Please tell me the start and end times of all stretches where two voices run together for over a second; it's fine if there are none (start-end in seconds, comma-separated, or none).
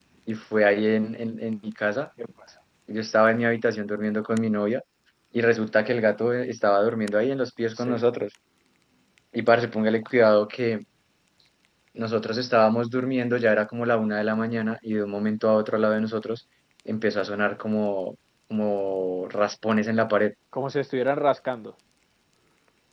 none